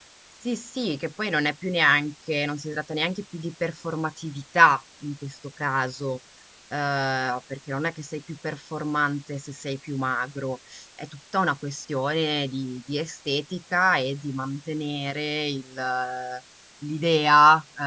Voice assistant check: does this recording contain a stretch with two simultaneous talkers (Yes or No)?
No